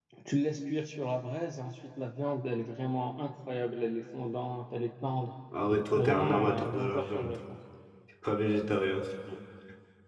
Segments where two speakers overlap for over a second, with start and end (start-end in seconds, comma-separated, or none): 6.0-7.4